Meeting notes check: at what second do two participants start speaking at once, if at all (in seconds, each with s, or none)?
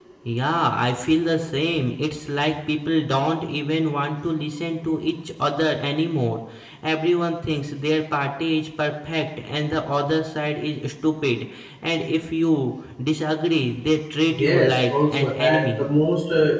14.3 s